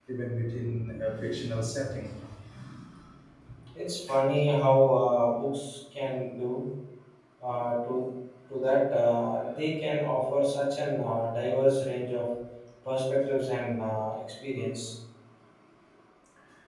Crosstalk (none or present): none